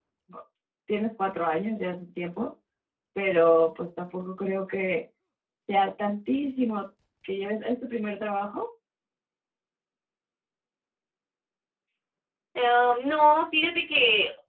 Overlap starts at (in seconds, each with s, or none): none